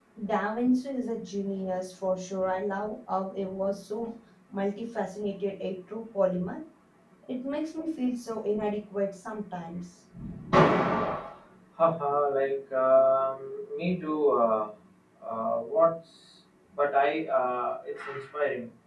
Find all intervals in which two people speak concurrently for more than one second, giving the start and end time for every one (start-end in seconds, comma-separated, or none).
none